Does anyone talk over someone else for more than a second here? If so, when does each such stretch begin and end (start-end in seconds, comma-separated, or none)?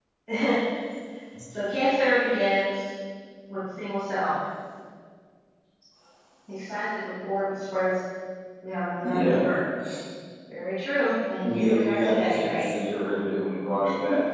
11.4-12.6